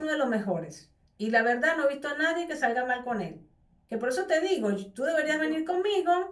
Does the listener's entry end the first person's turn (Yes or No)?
No